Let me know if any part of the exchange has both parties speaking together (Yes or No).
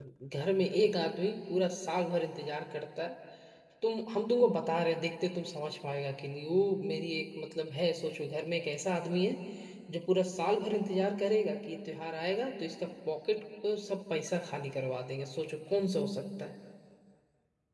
No